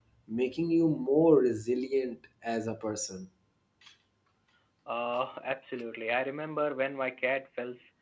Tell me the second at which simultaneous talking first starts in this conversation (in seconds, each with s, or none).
none